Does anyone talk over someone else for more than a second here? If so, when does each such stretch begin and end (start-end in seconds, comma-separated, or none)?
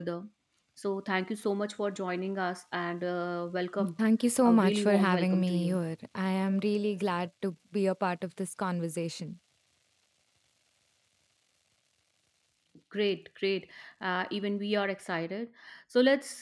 4.4-5.8